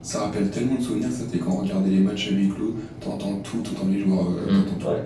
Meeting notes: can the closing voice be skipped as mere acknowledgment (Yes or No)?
No